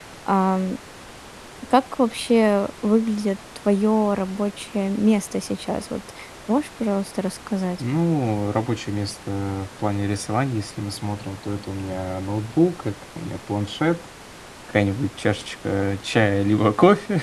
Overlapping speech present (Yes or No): No